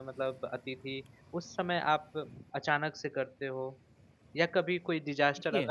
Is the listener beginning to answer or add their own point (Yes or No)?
No